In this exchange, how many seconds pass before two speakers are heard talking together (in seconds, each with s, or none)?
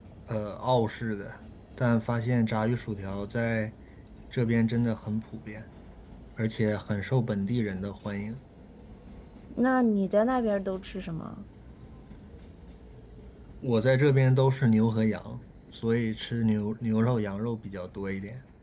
none